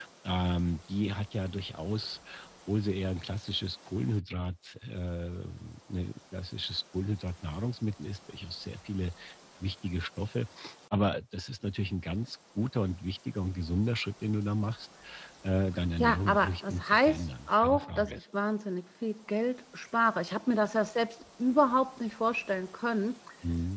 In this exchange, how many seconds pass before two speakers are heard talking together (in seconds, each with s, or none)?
16.0 s